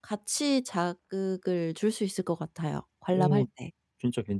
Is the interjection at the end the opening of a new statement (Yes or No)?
Yes